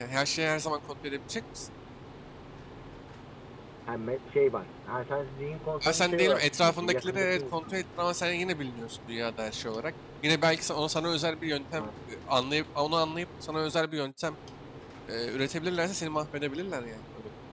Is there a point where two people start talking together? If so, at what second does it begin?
5.8 s

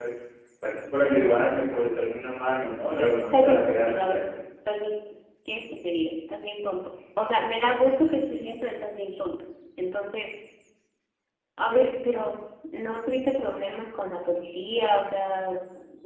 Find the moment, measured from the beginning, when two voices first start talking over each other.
3.0 s

